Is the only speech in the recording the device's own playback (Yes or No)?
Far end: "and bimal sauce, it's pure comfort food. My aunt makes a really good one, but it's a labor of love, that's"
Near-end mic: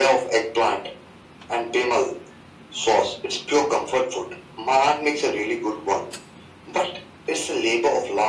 Yes